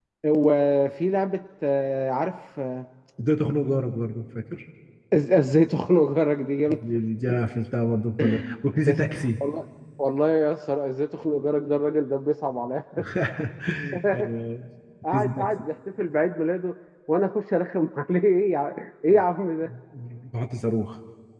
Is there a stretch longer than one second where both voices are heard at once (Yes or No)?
No